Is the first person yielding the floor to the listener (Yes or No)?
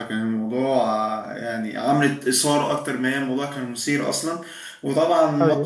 No